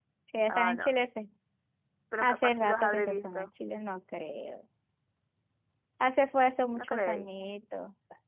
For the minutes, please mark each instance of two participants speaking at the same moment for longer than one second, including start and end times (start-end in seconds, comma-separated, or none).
2.2-3.5